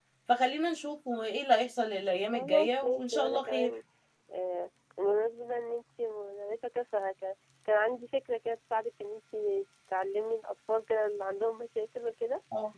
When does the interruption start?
2.3 s

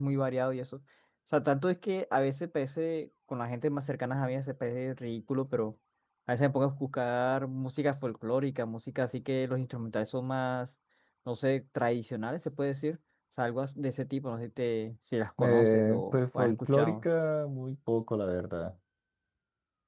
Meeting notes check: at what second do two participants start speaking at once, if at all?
15.4 s

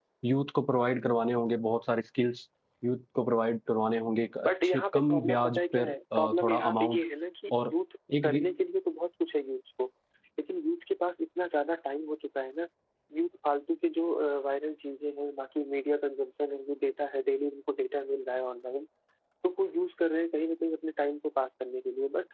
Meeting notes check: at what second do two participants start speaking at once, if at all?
4.5 s

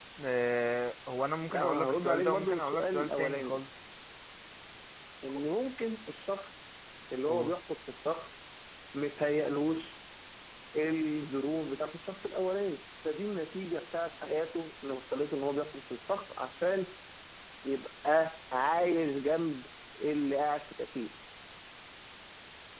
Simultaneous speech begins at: 1.5 s

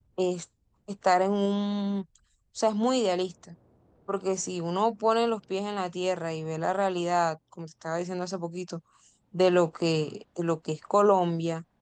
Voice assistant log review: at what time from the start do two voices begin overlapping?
none

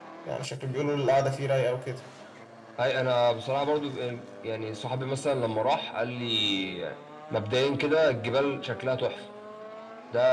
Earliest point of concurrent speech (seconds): none

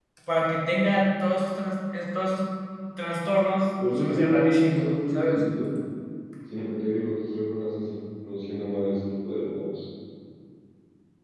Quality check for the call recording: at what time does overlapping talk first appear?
3.8 s

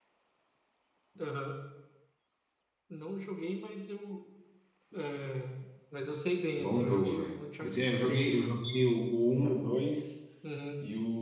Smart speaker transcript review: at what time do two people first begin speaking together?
6.6 s

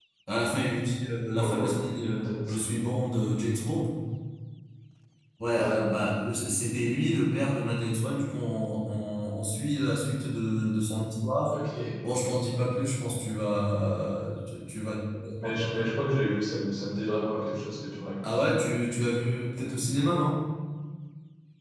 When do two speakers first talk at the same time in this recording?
1.4 s

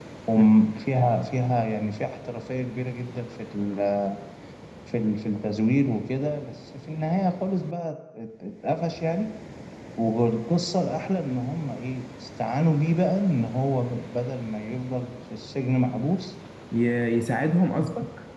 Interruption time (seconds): none

